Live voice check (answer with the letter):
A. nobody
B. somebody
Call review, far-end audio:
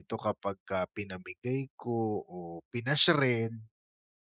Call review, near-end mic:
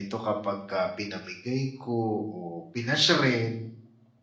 A